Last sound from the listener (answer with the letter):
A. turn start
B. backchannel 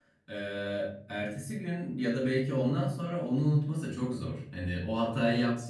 B